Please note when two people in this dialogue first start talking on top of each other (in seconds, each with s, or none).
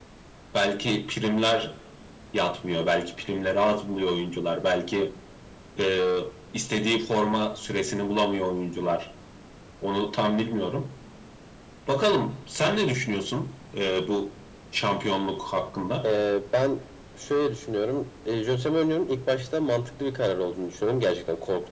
none